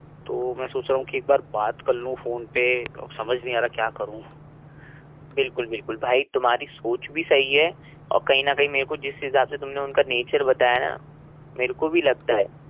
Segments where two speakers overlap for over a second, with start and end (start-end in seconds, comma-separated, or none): none